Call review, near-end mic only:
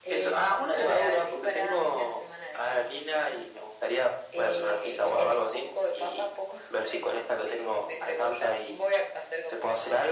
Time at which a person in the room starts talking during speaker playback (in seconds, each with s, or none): none